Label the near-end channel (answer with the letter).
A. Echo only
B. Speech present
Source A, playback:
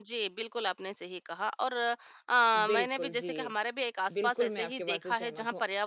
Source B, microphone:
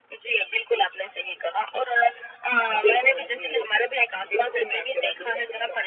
A